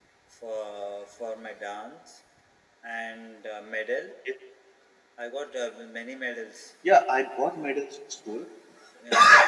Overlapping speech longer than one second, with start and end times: none

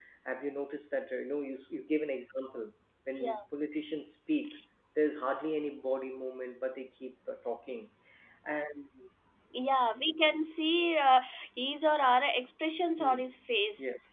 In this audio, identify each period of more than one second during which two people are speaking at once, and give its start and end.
none

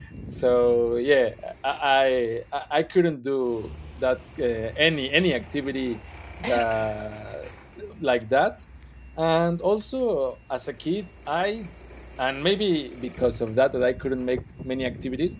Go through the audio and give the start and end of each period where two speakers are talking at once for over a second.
none

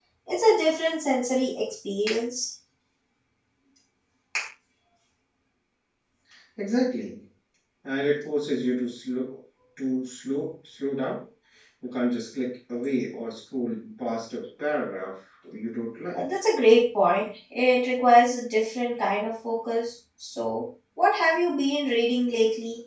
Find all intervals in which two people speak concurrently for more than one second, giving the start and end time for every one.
none

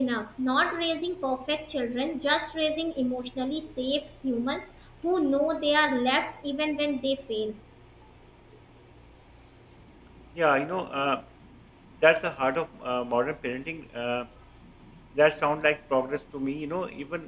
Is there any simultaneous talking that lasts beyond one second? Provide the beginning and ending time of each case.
none

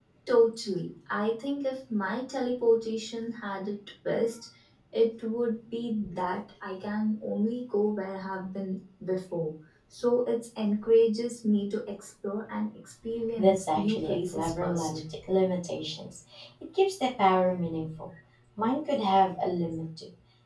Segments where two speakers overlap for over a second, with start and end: 13.4-15.0

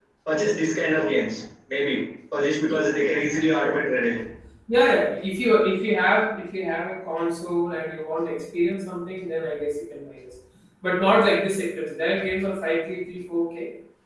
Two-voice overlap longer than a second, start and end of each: none

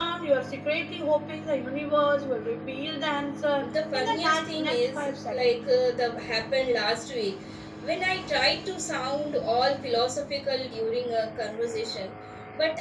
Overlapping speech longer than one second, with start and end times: 3.7-5.5

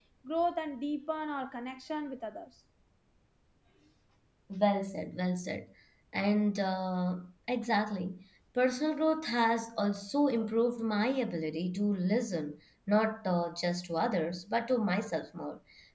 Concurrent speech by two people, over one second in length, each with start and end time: none

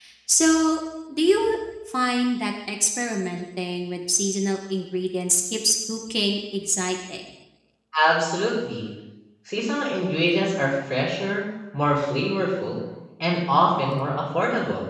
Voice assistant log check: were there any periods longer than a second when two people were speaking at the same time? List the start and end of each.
none

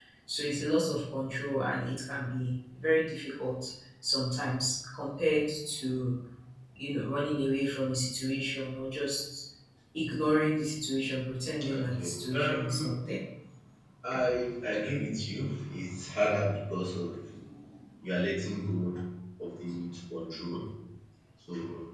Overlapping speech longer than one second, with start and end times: 11.7-12.9

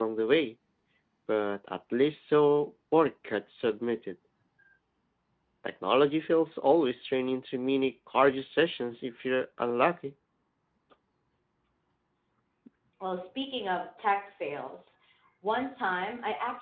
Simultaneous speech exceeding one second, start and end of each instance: none

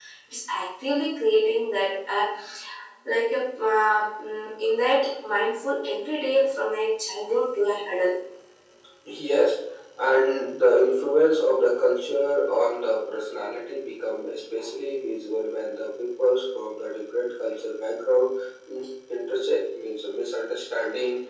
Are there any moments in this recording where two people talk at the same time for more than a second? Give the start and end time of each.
none

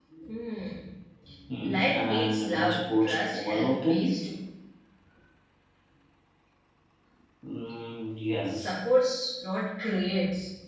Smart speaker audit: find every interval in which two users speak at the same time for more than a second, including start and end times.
1.6-4.1

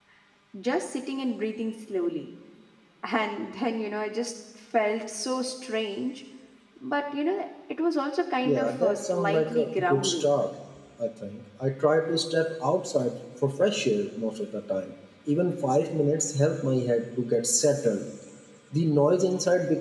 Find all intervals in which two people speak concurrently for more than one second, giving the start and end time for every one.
8.4-10.3

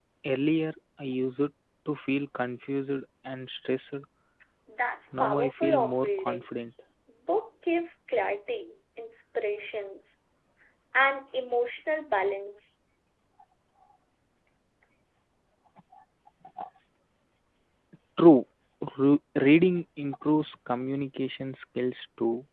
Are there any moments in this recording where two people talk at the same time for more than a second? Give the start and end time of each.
5.2-6.6

